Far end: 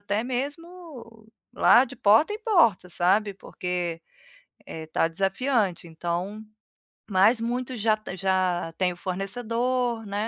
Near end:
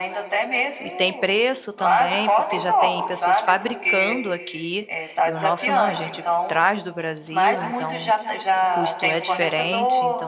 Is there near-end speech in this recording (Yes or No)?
Yes